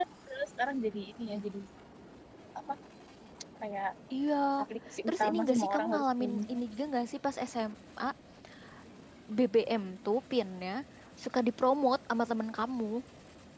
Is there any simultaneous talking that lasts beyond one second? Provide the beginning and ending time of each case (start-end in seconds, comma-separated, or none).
5.1-6.5